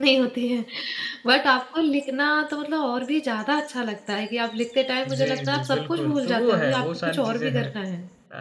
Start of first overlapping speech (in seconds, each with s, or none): 5.0 s